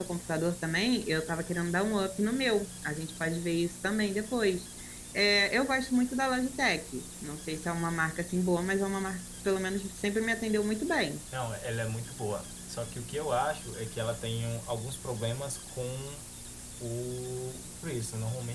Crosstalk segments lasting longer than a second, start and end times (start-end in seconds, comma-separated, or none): none